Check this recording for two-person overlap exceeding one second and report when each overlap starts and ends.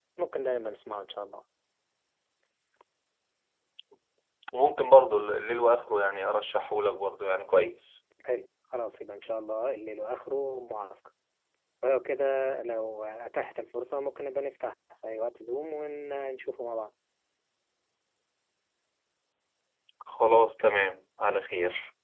none

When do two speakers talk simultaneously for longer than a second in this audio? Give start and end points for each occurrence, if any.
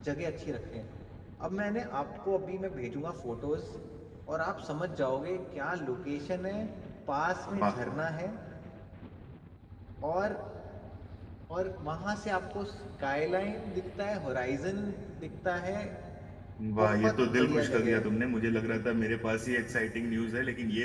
16.8-18.1

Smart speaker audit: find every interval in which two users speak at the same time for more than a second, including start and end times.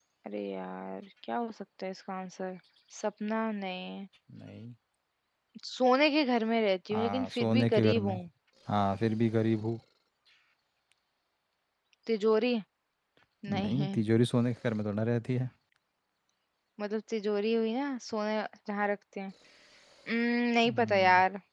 6.9-8.1

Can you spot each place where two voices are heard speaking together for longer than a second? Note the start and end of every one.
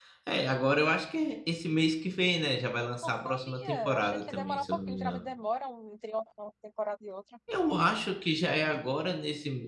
2.7-5.2

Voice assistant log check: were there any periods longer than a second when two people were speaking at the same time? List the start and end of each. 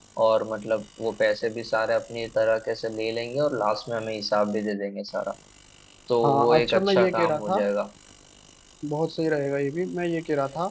6.2-7.6

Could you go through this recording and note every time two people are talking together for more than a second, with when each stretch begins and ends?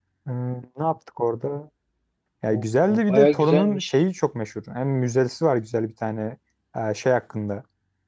2.5-3.9

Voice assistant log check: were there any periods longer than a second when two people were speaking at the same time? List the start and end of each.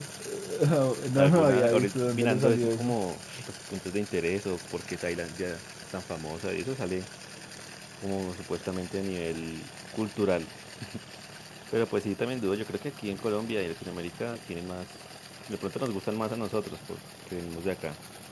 1.2-3.0

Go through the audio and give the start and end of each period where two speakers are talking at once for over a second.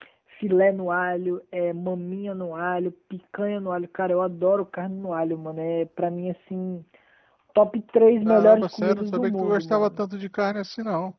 8.2-10.0

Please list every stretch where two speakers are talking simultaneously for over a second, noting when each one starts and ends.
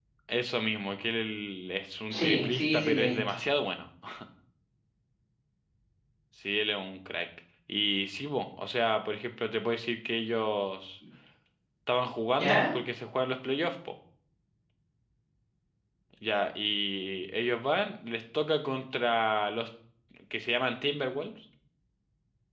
2.1-3.3

